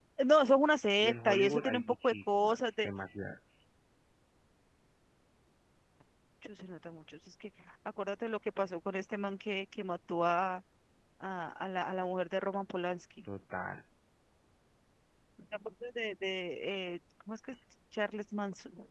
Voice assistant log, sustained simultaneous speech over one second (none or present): present